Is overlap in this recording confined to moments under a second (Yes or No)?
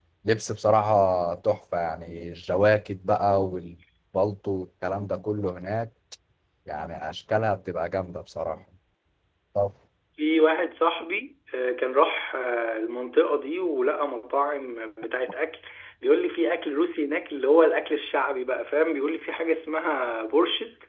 Yes